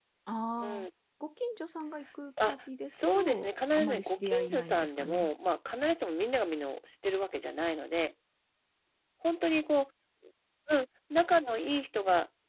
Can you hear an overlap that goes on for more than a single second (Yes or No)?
Yes